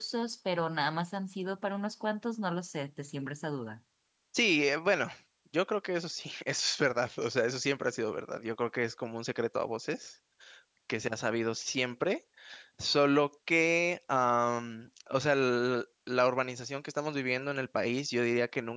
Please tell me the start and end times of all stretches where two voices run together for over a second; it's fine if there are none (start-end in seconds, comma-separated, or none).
none